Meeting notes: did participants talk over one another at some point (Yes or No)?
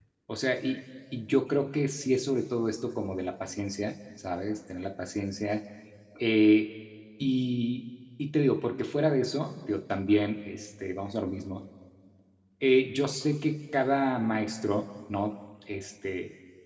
No